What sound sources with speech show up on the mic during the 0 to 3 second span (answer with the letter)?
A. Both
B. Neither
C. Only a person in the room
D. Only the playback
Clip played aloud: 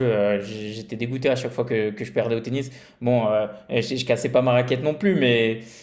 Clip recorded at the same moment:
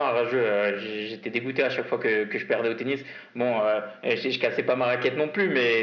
D